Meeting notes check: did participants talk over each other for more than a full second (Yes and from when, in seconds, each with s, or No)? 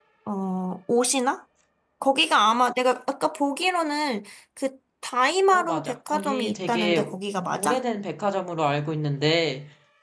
Yes, from 5.5 s